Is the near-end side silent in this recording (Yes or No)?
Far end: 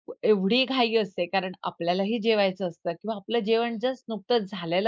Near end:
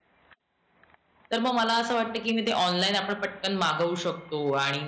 No